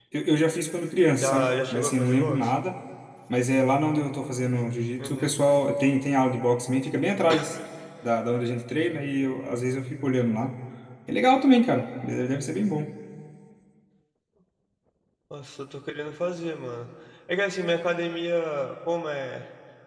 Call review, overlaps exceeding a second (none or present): present